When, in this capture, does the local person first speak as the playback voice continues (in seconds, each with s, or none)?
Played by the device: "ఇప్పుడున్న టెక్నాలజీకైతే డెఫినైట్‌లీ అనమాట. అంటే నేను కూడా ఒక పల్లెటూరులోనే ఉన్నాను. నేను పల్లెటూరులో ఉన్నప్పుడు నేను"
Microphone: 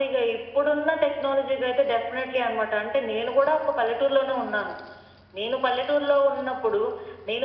none